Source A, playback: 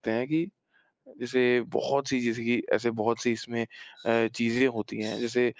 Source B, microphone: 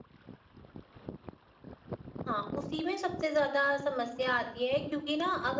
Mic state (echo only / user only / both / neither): user only